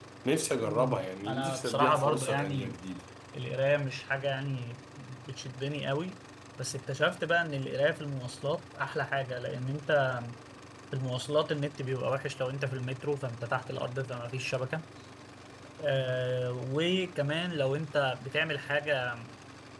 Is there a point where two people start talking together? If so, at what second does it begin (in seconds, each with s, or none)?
0.6 s